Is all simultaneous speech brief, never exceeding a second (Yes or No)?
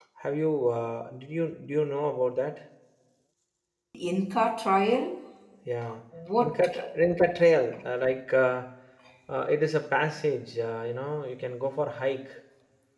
Yes